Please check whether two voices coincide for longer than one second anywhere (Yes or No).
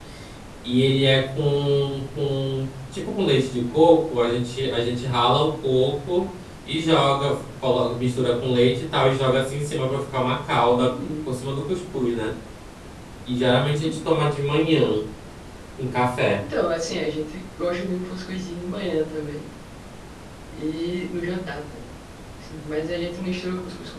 No